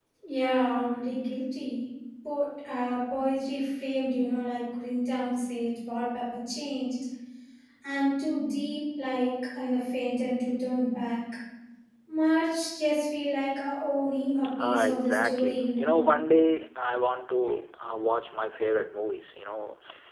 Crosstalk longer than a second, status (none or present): present